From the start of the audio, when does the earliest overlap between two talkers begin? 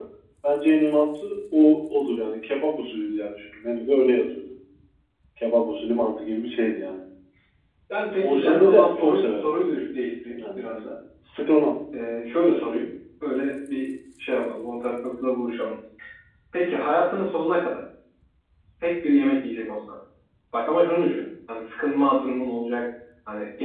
8.2 s

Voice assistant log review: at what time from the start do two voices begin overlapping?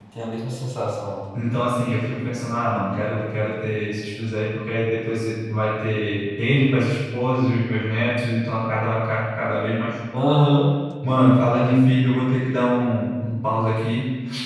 none

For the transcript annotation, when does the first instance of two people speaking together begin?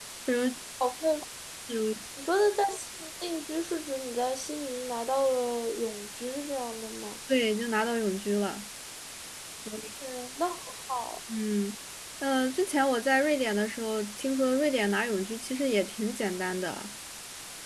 none

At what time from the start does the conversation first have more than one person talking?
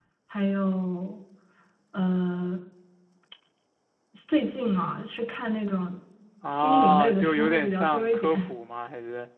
6.5 s

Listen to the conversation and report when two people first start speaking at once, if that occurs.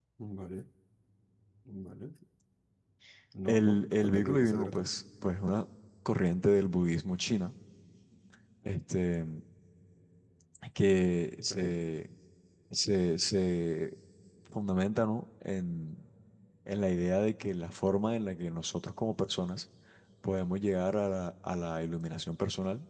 3.5 s

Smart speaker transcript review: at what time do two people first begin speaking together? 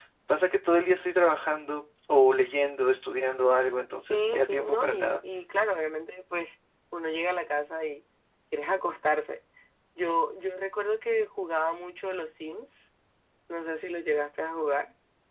4.0 s

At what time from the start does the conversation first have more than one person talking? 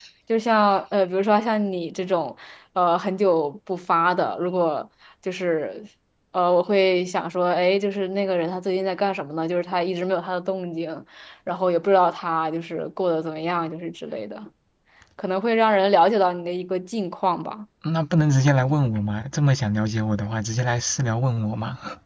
none

